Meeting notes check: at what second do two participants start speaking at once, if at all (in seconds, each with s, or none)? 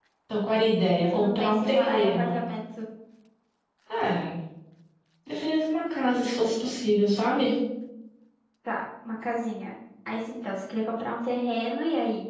1.1 s